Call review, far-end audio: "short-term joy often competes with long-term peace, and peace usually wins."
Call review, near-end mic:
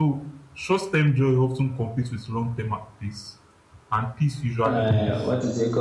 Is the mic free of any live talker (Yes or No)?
No